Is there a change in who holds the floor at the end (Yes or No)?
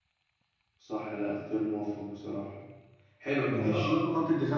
No